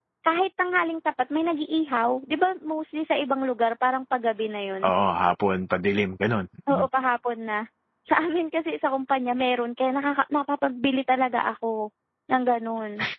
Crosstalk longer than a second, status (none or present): none